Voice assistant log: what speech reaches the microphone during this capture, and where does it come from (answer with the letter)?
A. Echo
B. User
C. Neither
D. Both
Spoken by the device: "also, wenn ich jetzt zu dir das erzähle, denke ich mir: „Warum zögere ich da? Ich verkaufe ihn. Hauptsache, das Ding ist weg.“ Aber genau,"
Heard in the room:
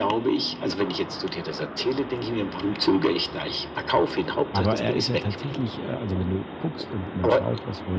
D